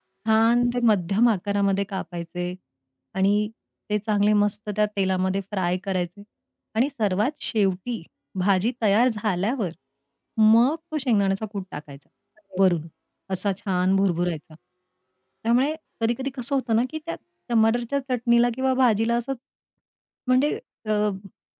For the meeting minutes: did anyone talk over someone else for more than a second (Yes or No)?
No